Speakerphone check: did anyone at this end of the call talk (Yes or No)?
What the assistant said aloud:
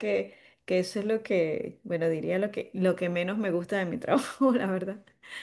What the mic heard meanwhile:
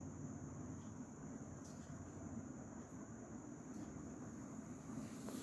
No